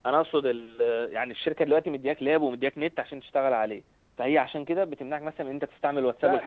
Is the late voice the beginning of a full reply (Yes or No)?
Yes